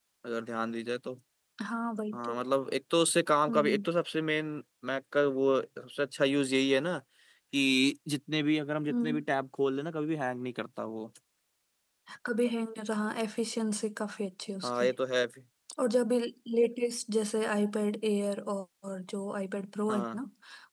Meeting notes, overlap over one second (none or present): none